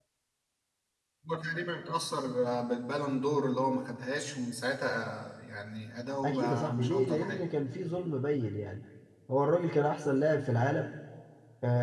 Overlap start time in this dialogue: 6.2 s

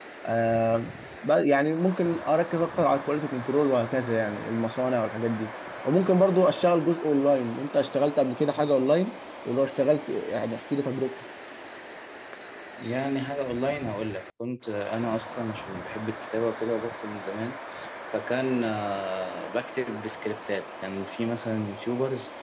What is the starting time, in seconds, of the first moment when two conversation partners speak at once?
none

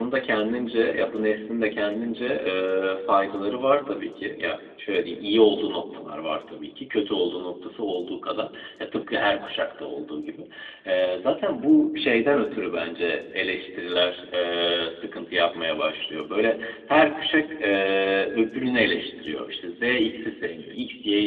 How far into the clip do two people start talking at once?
none

